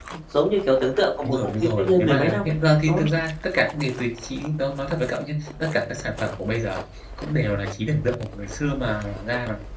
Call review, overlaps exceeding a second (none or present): present